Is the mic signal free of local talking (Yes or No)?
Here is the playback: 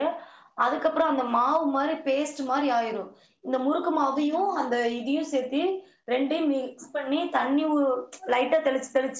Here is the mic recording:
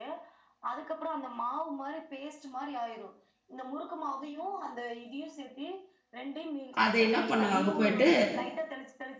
No